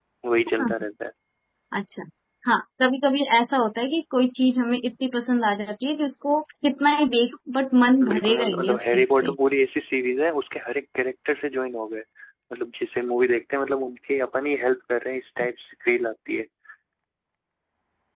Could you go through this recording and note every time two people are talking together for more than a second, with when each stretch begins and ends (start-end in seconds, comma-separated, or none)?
8.1-9.3